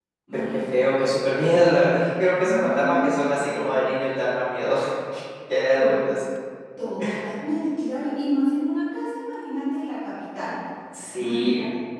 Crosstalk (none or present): present